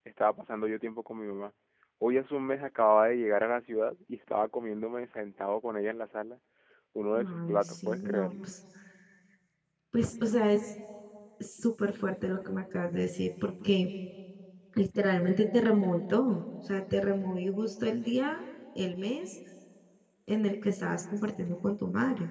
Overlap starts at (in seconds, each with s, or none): 7.1 s